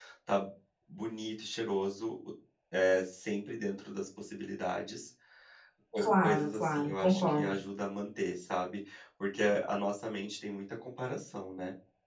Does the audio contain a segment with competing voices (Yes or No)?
Yes